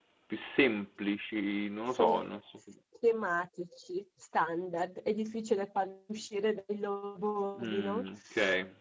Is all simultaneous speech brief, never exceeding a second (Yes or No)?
Yes